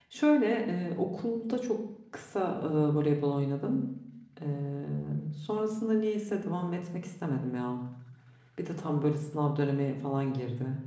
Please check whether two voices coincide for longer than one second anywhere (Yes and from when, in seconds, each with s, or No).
No